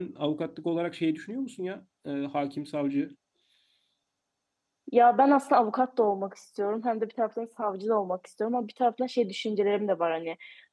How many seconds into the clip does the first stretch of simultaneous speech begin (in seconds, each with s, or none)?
none